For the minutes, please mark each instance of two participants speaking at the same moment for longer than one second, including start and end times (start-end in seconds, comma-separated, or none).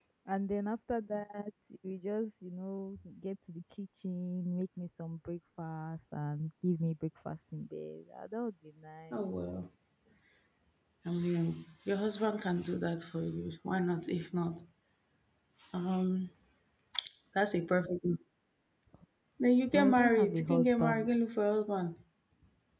19.7-21.1